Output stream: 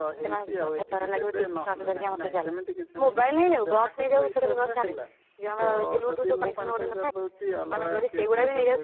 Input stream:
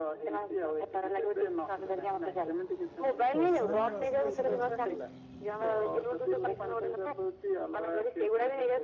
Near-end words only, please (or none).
ପ୍ରୋତ୍ସାହନ ରାଶି ସମସ୍ତ